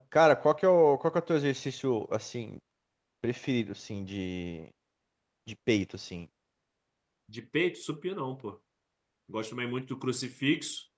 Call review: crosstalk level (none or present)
none